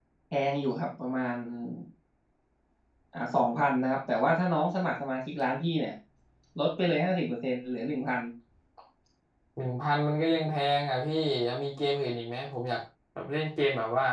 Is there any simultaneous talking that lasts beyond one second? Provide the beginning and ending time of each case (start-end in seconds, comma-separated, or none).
none